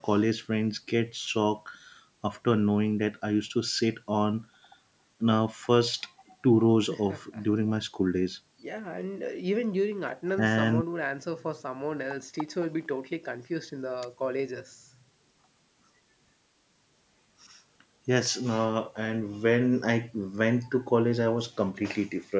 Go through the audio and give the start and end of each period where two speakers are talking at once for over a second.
none

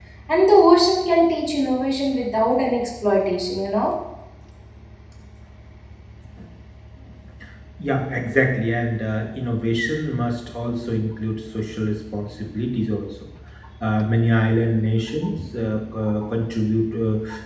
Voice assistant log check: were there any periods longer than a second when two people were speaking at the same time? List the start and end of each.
none

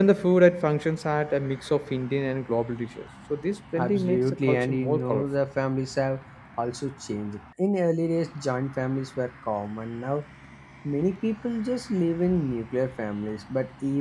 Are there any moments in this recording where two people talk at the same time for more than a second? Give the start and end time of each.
3.8-5.2

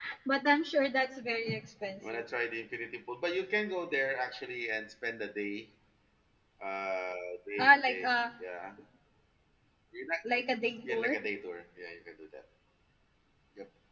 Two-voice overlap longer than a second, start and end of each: none

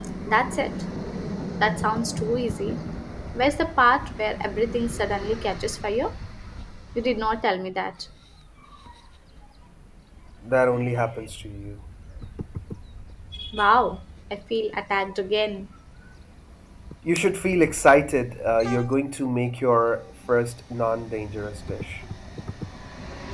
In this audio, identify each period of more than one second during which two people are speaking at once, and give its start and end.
none

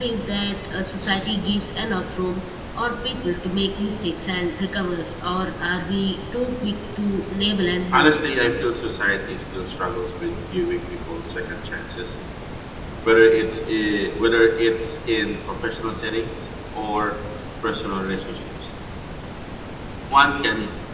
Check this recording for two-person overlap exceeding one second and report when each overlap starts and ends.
none

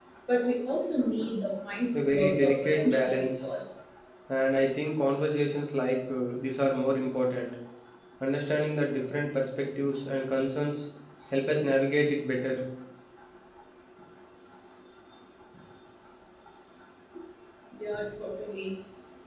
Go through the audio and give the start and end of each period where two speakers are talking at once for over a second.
2.0-3.5

